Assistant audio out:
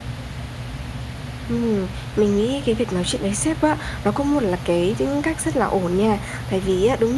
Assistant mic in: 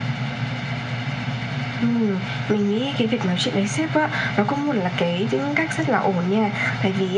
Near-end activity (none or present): none